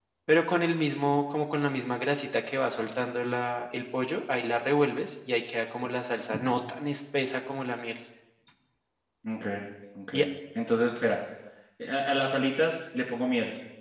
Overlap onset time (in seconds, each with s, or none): none